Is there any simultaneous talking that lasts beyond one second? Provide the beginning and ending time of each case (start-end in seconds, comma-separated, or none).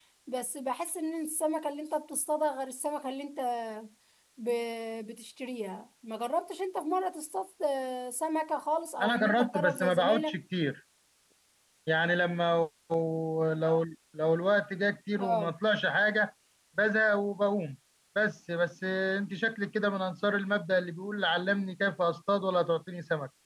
9.0-10.4